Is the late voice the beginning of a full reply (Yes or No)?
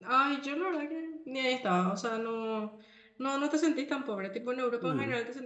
No